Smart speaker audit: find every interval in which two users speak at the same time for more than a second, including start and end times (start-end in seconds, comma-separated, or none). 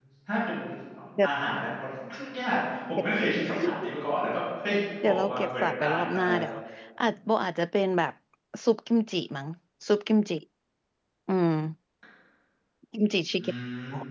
5.0-6.3